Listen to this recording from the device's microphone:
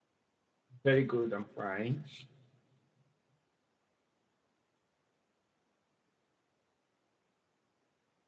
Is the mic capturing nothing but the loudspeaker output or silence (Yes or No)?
No